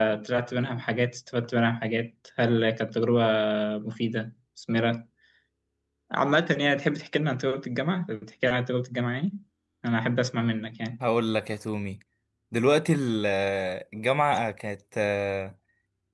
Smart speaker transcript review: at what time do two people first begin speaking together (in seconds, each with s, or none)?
none